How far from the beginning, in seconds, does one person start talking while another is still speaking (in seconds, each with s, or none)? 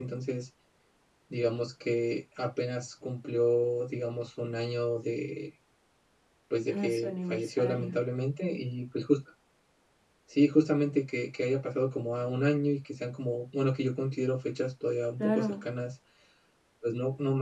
6.7 s